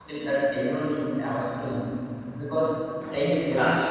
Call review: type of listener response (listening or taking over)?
listening